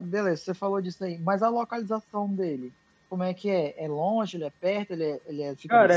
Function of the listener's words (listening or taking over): taking over